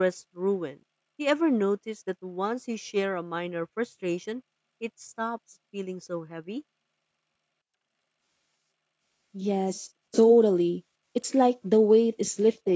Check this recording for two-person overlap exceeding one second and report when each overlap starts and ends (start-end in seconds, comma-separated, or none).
none